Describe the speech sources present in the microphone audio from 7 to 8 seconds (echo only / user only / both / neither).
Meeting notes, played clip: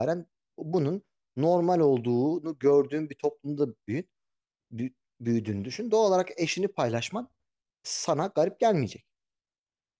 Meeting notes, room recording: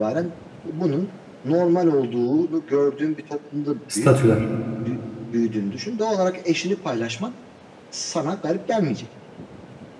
echo only